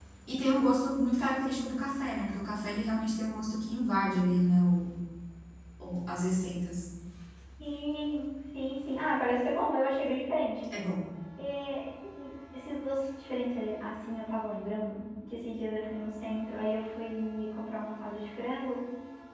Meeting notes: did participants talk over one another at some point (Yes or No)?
No